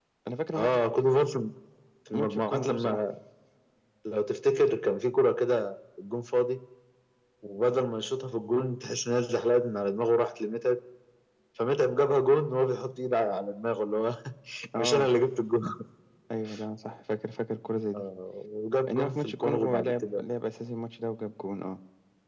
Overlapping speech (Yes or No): Yes